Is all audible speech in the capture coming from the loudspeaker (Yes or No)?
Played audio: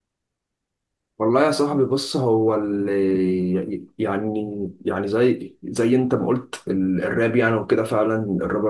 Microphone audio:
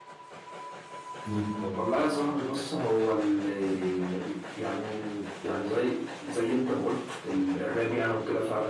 No